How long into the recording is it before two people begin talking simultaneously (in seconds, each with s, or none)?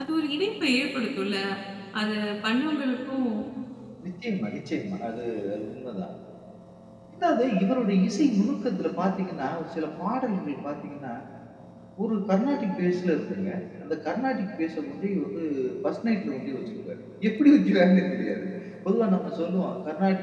none